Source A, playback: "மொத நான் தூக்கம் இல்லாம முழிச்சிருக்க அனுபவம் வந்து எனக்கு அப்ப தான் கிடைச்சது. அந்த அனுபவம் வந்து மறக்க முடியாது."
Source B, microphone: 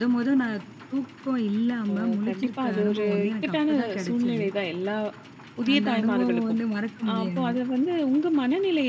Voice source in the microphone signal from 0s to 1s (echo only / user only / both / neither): echo only